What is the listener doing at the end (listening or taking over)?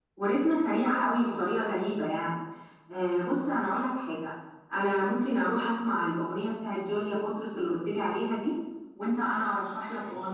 listening